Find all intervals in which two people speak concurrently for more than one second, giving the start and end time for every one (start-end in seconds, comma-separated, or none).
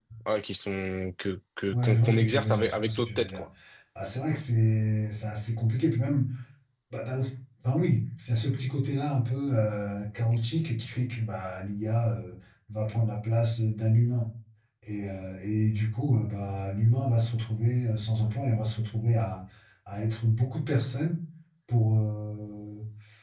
1.7-3.4